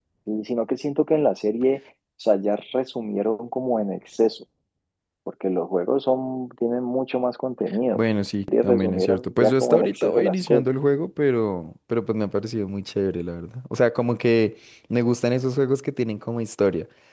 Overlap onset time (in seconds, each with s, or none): 8.6 s